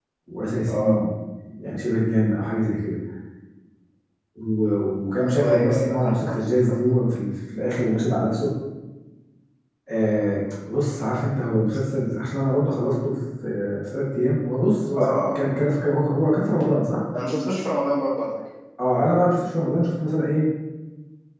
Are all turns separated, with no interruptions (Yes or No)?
No